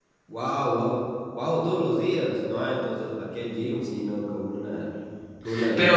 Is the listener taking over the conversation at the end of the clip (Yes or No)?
Yes